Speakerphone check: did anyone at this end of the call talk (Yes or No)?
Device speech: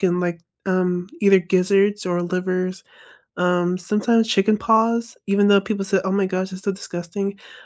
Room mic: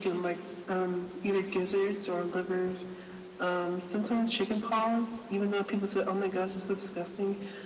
No